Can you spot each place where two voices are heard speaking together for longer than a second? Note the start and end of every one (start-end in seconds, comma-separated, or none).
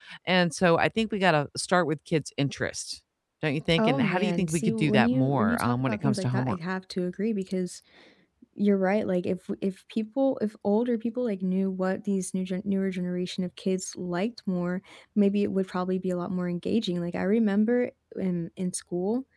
3.8-6.6